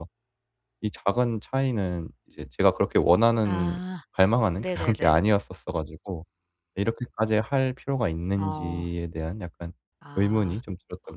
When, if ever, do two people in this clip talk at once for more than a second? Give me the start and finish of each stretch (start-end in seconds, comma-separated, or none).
none